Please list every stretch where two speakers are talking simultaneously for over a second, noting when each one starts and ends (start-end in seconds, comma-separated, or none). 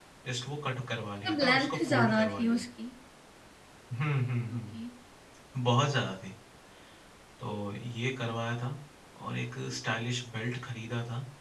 1.2-2.6